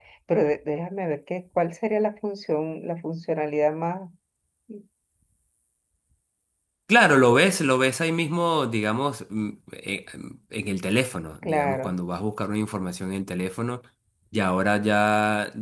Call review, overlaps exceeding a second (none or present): none